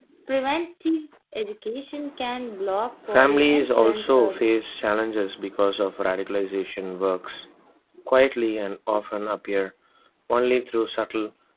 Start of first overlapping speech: 3.1 s

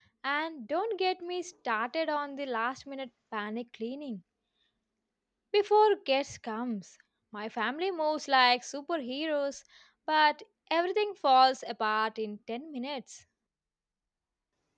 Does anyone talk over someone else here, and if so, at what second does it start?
none

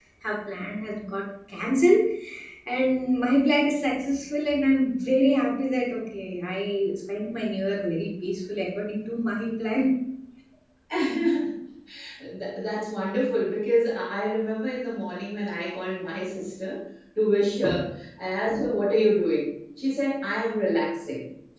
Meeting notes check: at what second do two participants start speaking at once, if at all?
none

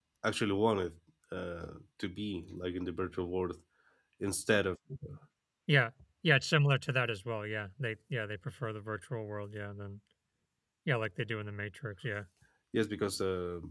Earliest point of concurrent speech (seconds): none

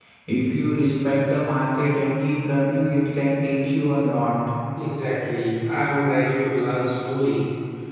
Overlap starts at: none

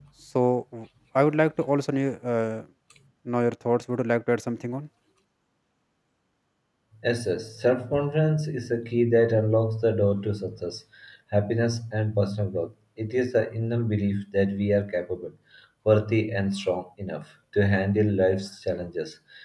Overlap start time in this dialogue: none

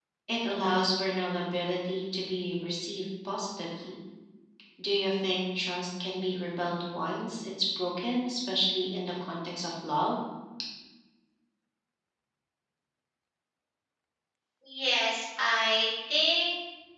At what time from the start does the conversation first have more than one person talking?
none

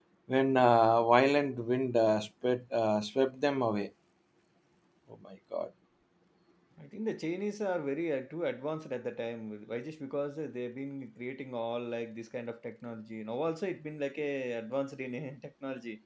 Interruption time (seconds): none

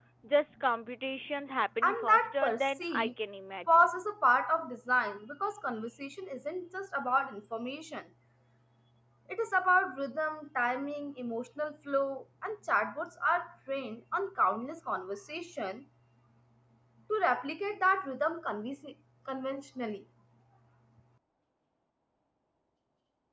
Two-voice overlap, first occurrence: 1.8 s

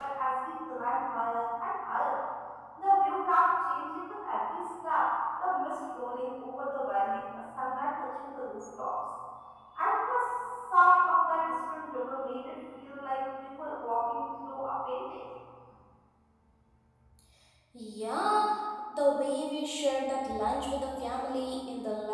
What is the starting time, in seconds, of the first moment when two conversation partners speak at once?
none

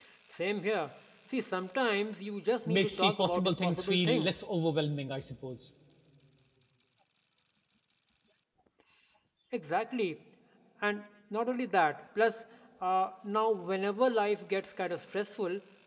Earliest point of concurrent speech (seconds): 2.6 s

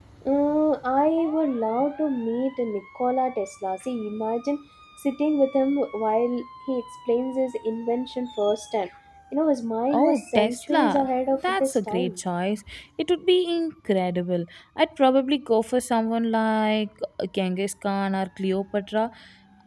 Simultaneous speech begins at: 9.9 s

